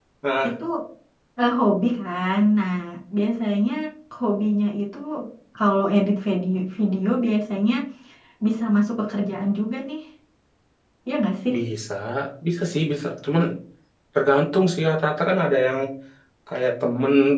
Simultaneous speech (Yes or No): No